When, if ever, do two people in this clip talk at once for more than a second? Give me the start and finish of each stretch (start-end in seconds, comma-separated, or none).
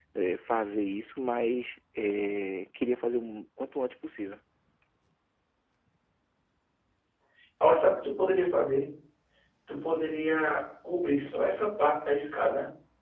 none